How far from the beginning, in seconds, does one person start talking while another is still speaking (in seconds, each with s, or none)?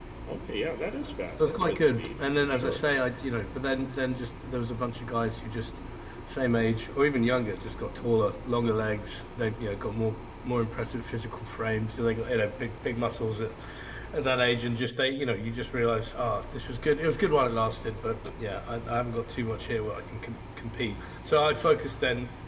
1.4 s